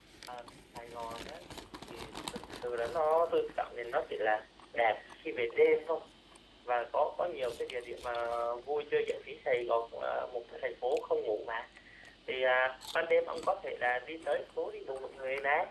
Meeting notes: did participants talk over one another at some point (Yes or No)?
No